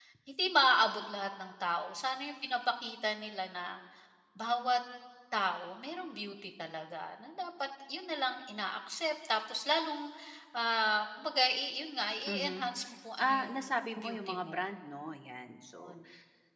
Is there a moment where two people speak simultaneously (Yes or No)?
Yes